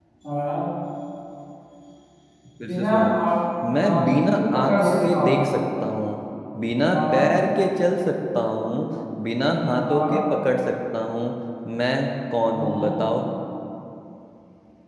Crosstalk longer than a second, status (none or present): present